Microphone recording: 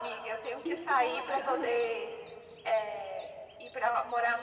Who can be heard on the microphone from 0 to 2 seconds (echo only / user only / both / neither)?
both